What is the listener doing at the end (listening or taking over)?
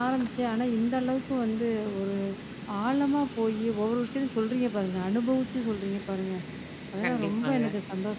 listening